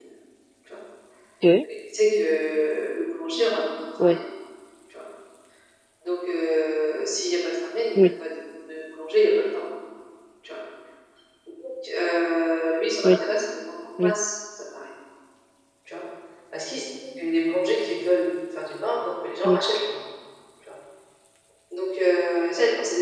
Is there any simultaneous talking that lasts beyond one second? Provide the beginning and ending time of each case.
none

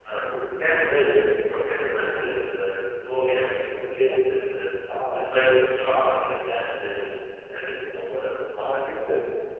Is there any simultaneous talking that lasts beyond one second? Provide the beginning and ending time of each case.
none

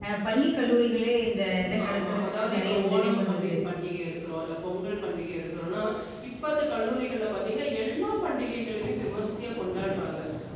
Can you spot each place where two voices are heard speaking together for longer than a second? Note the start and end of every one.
1.6-3.6

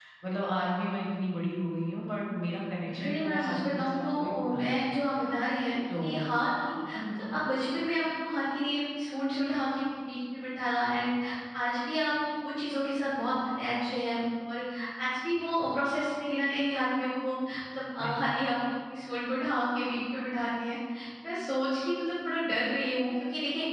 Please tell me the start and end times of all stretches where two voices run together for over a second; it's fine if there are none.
2.8-4.8

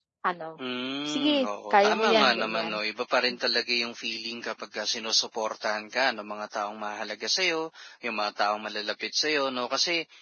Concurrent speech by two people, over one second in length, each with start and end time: 1.1-2.8

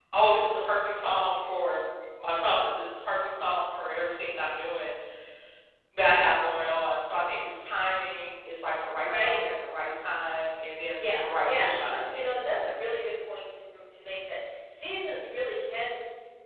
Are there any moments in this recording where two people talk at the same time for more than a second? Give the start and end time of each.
11.0-12.3

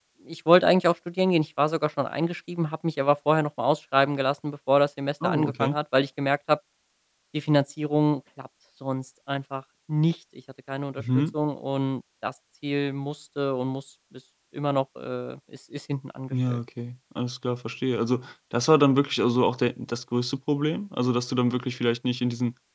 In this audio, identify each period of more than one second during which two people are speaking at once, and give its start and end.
none

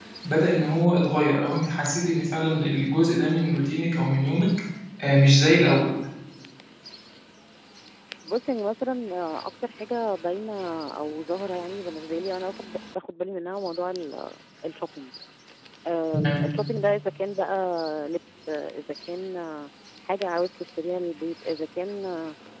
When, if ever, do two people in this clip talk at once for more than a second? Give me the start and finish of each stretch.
none

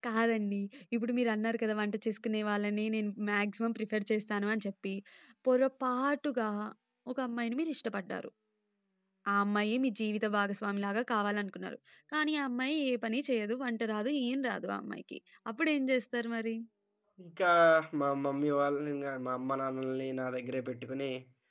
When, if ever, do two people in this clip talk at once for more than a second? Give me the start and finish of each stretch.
none

